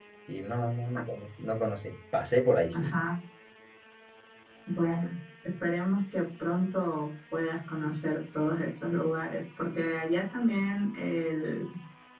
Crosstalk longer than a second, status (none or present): none